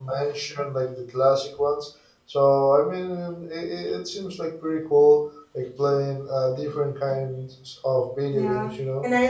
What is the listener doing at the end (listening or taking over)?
taking over